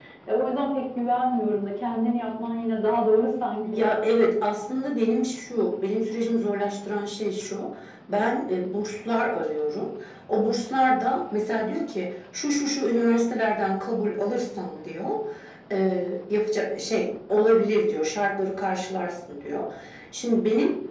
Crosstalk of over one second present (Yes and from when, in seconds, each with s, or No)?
No